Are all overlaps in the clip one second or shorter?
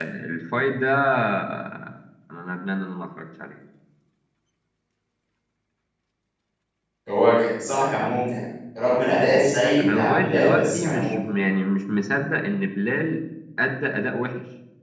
No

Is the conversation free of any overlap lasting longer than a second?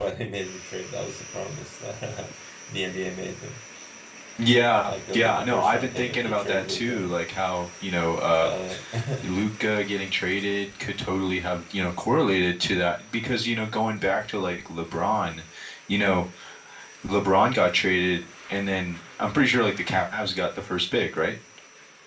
No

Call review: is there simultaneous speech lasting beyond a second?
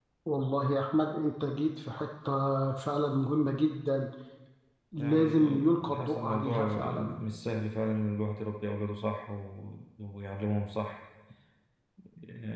Yes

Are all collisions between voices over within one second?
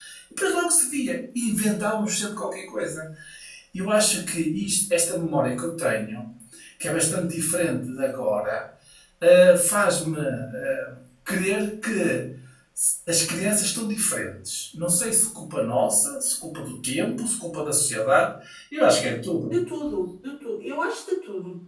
Yes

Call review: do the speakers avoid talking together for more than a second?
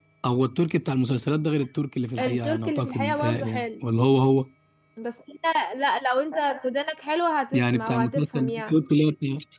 No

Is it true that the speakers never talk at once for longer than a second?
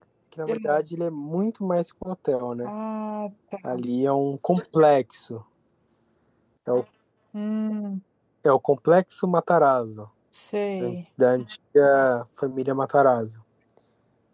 Yes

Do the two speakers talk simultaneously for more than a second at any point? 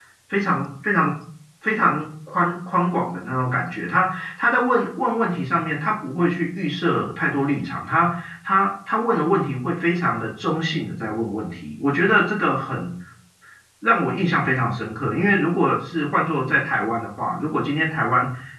No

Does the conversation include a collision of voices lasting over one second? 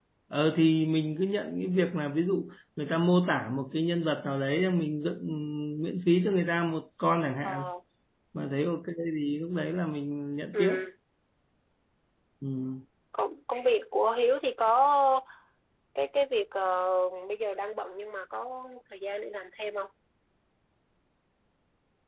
No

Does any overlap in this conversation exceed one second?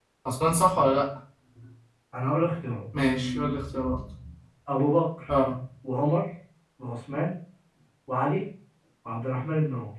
No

